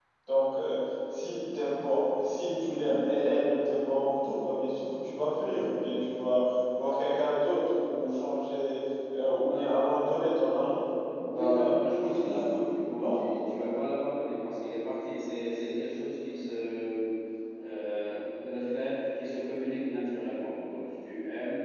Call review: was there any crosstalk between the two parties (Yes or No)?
Yes